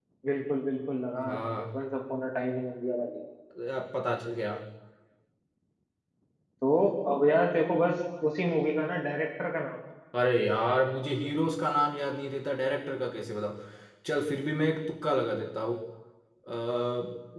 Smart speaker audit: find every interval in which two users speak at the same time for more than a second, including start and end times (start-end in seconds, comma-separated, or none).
none